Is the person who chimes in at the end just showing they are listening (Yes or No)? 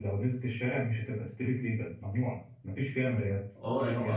No